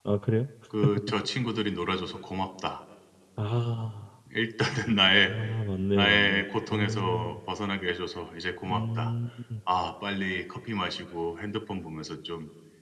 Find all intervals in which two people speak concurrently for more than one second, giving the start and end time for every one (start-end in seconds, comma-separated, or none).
5.9-7.4